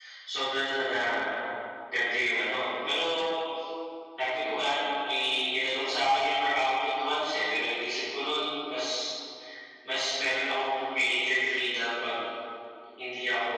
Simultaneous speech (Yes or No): No